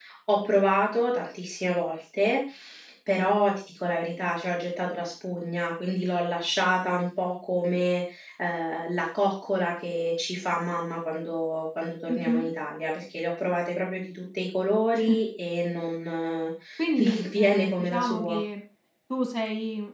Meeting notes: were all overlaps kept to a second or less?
No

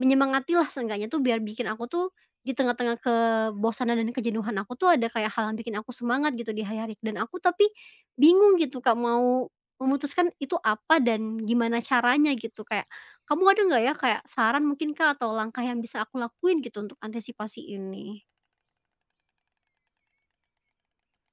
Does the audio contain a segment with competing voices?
No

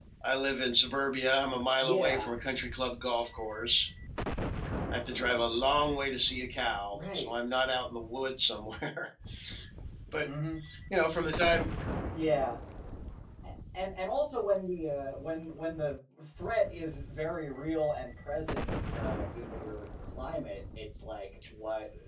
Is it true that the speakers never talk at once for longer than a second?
Yes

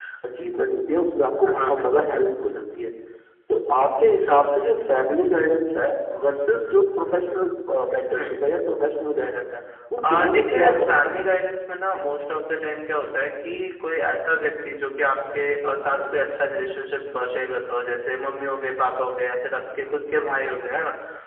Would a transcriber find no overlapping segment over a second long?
No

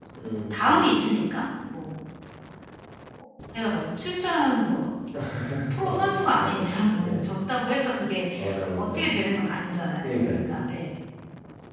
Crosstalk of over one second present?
Yes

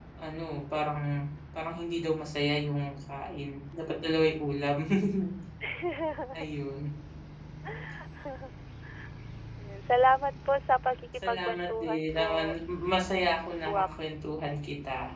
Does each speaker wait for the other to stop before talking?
No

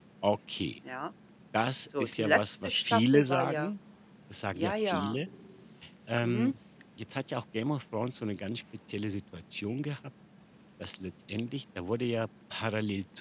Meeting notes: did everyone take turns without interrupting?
No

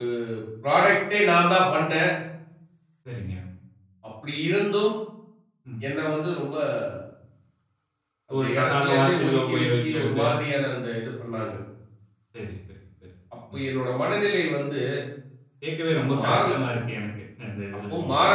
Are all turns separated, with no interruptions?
No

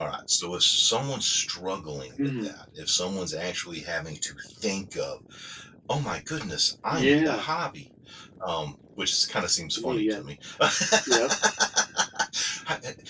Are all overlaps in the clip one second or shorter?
Yes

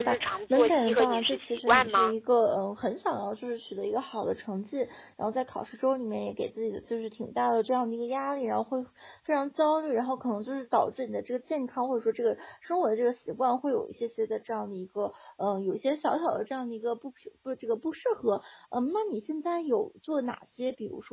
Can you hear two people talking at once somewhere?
Yes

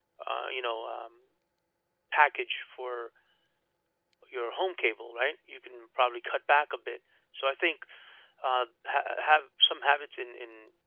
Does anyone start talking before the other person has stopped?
No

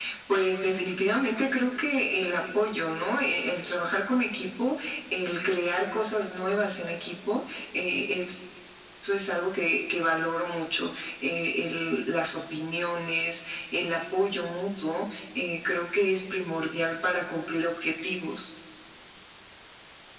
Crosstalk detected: No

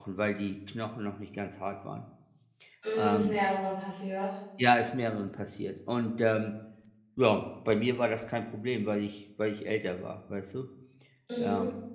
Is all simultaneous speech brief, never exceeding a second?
Yes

